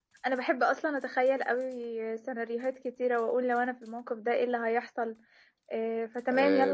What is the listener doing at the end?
taking over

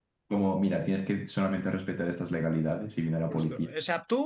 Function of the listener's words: taking over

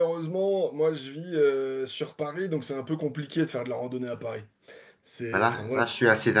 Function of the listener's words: taking over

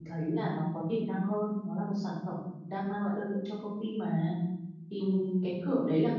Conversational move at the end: listening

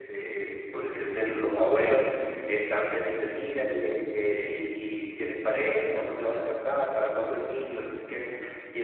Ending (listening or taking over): listening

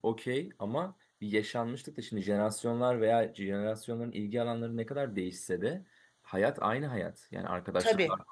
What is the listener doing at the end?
listening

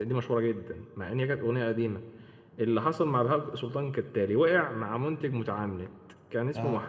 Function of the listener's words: listening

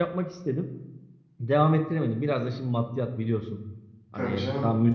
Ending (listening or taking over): listening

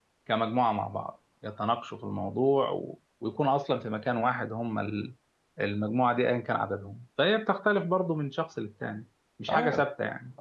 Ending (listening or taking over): taking over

